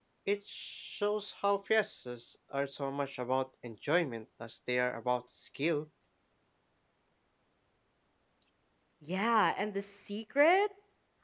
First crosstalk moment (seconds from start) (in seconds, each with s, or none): none